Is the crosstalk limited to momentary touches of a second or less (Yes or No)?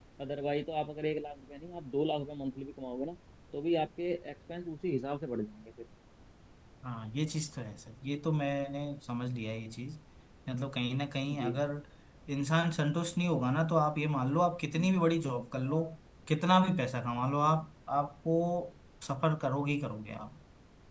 Yes